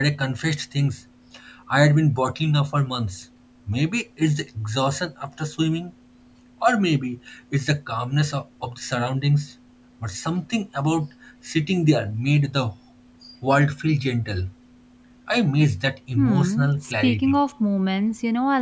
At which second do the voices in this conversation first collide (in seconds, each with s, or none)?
16.2 s